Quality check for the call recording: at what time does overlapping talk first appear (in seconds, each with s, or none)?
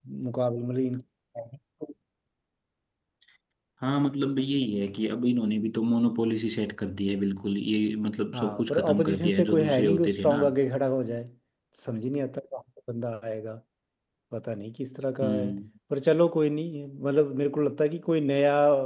8.3 s